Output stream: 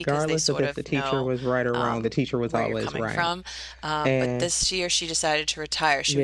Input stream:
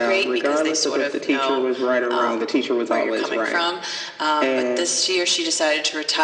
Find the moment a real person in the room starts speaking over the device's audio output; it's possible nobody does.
none

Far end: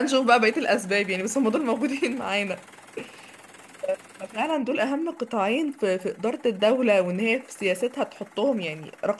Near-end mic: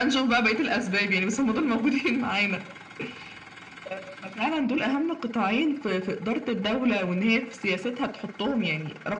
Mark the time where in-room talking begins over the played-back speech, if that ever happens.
none

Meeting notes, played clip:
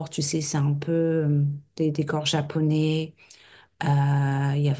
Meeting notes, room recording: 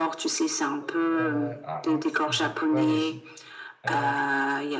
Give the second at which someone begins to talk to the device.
1 s

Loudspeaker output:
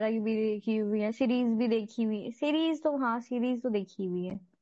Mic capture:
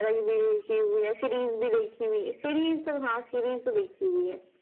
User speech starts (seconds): none

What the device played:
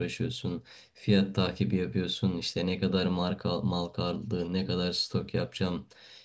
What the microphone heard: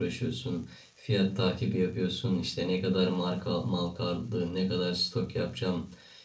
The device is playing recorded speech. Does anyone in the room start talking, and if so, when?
none

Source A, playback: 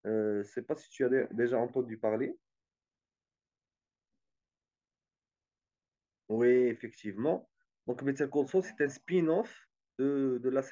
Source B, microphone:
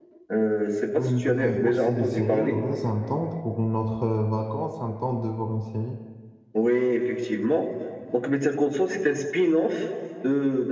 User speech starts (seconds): 1 s

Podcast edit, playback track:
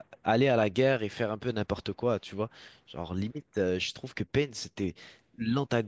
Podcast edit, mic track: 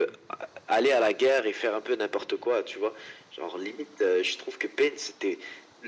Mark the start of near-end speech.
none

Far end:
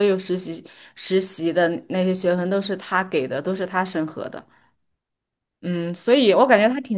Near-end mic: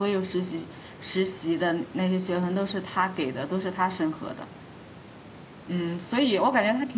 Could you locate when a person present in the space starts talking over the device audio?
none

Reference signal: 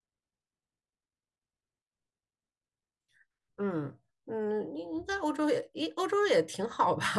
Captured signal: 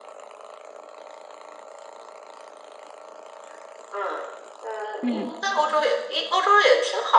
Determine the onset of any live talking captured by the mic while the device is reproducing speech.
5 s

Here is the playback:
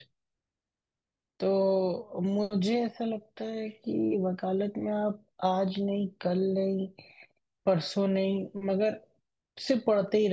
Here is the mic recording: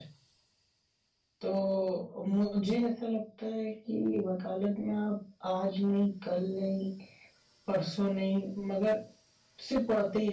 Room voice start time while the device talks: none

